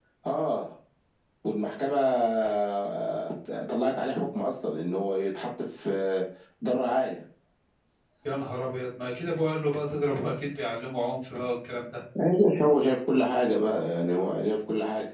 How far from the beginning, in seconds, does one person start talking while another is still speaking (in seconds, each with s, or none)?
none